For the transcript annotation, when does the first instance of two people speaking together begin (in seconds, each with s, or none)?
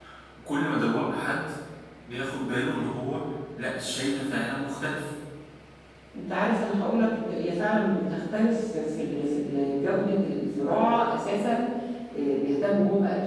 none